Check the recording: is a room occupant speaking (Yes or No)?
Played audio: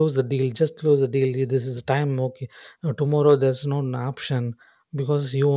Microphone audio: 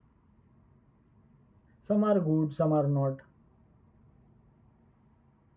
Yes